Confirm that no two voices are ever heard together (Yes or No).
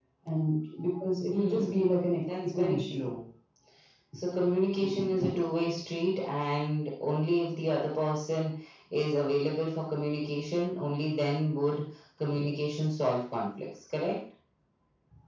No